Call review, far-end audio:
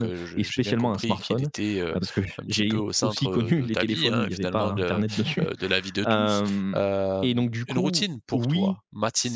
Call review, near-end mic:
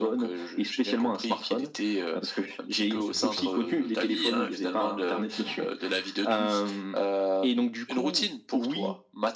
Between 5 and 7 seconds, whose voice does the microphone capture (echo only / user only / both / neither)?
echo only